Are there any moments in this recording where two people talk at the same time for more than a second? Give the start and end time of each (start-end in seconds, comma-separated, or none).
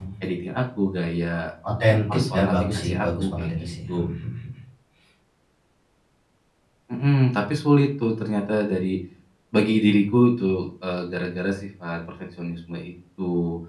2.3-4.0